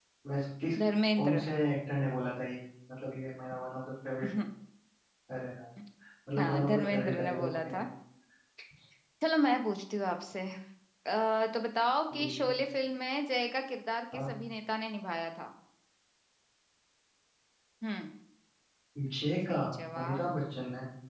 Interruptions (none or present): present